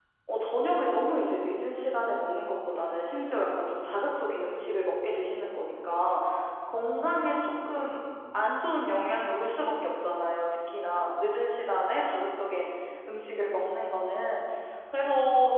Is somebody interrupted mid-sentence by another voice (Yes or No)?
No